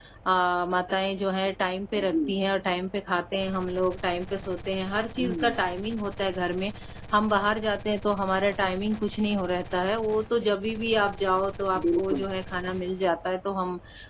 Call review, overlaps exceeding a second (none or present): none